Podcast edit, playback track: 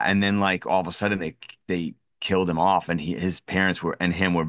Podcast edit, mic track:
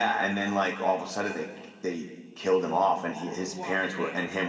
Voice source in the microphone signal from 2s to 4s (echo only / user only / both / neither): both